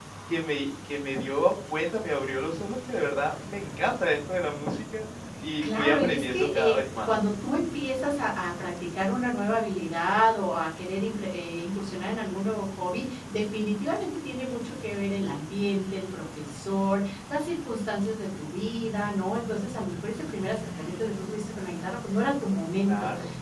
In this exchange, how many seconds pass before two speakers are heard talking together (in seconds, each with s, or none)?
5.6 s